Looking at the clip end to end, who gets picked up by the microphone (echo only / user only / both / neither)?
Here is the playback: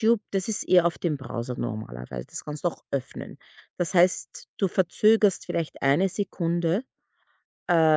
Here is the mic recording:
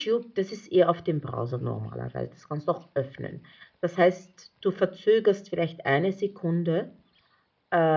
echo only